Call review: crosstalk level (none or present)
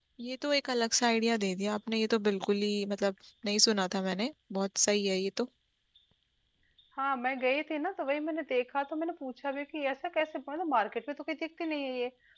none